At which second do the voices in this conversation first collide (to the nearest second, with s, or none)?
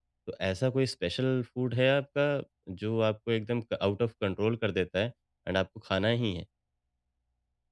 none